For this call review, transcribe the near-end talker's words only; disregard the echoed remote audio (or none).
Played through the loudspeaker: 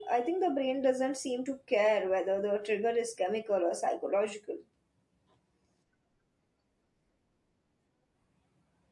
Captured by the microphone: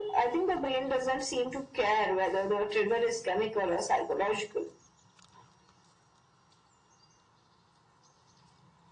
none